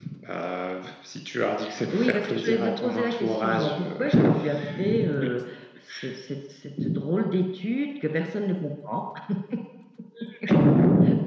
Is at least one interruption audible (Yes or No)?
Yes